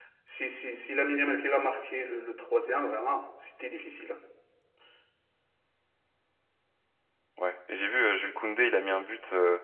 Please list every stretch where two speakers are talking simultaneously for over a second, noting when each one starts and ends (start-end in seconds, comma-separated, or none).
none